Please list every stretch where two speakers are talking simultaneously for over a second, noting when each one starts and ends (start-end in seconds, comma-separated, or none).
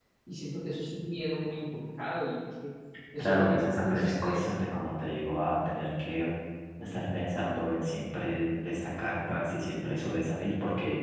3.2-4.5